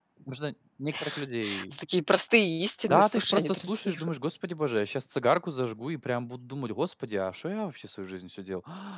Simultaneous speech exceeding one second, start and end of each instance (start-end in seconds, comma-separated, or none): 2.9-4.1